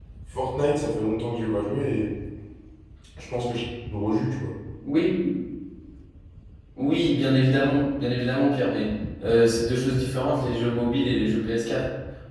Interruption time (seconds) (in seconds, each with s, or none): none